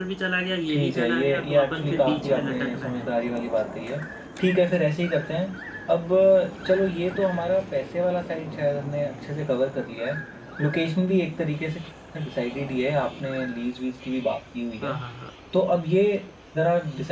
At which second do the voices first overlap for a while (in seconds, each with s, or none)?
0.7 s